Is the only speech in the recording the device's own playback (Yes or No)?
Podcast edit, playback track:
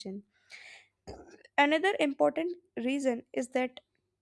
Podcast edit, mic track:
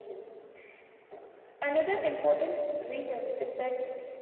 Yes